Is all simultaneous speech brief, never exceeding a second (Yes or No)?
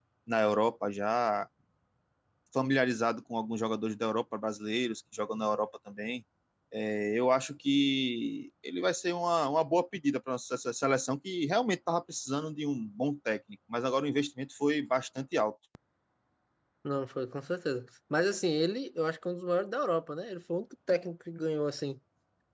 Yes